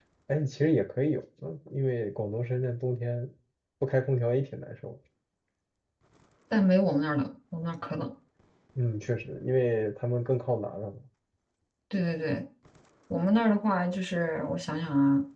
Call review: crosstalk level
none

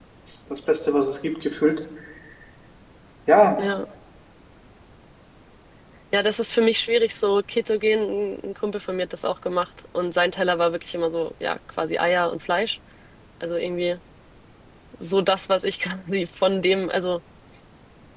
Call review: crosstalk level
none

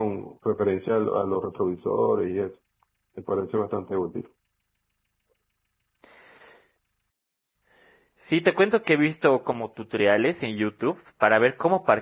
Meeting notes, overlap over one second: none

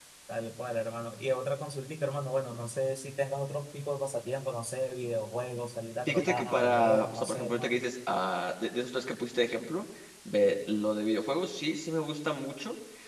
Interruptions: present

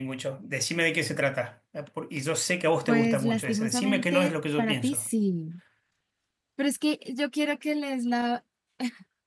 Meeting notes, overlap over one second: present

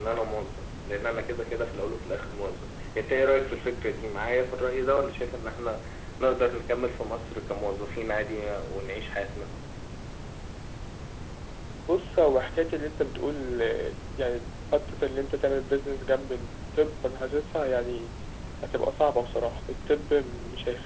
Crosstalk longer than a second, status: none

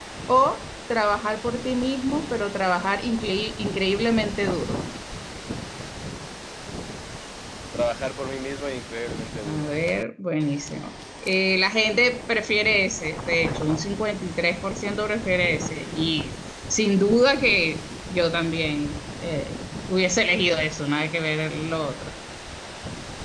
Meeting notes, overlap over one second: none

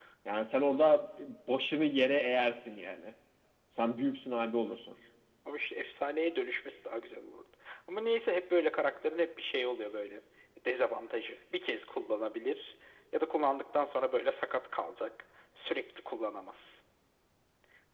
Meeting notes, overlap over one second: none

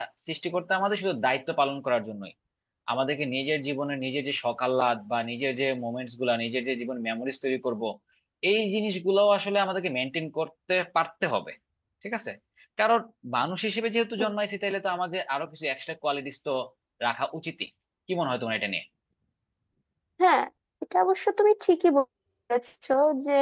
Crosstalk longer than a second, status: none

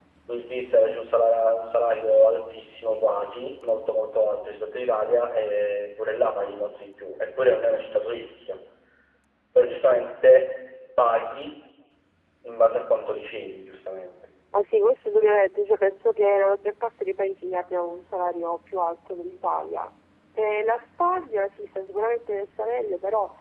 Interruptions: none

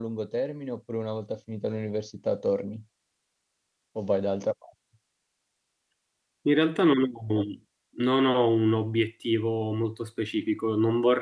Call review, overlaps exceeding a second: none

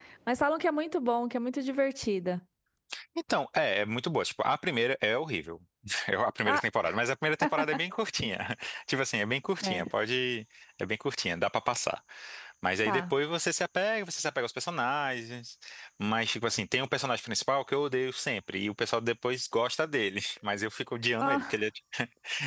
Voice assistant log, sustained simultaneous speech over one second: none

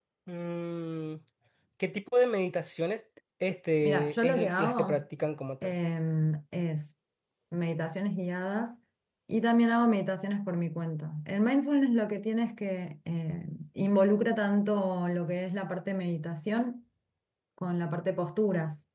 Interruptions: present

